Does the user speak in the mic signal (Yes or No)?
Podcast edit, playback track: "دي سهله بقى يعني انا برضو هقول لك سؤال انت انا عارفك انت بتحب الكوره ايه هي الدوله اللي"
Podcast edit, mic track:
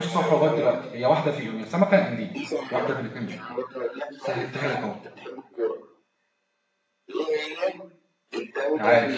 Yes